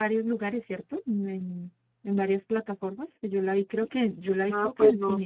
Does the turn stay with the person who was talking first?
No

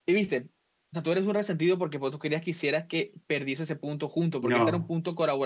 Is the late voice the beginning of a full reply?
No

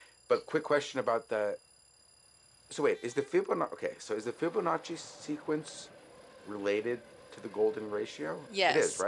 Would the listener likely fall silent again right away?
No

